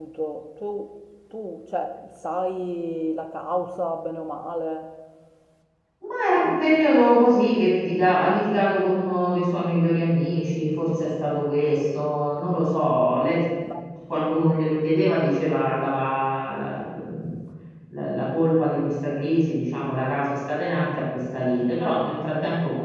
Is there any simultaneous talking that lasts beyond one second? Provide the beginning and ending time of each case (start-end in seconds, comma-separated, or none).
none